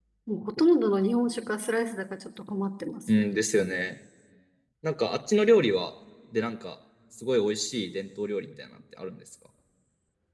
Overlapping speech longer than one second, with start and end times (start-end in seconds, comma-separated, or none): none